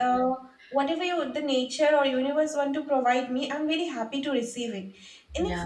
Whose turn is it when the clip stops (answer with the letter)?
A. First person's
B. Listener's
A